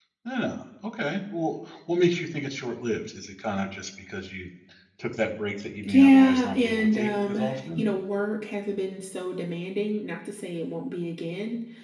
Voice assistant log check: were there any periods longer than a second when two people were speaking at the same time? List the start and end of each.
5.9-7.8

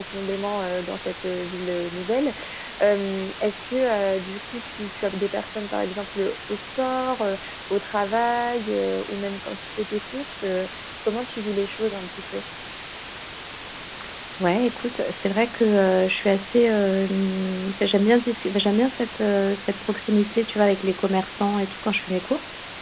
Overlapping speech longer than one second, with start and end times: none

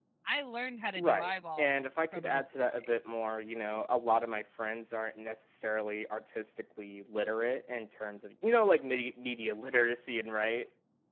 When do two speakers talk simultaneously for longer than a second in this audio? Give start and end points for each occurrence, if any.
1.0-2.9

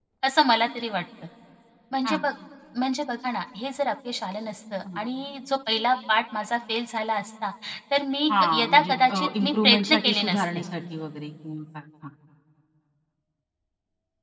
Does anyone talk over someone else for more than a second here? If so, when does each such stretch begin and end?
8.4-10.6

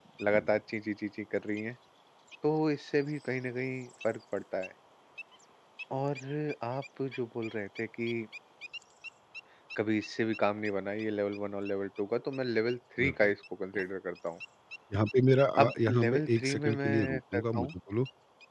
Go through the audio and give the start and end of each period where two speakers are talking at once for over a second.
15.6-17.7

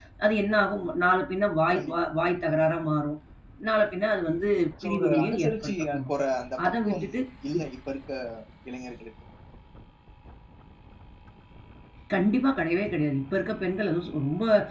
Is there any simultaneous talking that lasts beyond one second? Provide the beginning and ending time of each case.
4.8-6.1

